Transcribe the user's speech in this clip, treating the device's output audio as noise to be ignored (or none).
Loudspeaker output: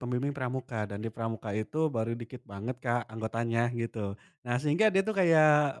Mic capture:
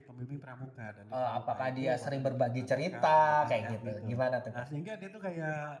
eee, apakah dia sering berbagi cerita kayak gitu, gimana tuh Kak?